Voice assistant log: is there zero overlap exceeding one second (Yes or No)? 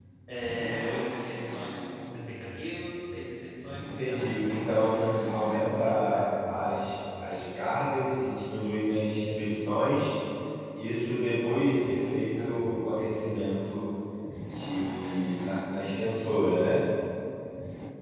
No